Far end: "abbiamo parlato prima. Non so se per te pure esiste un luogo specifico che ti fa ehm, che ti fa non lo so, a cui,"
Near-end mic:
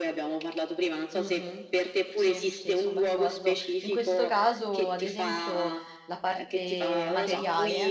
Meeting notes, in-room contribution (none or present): present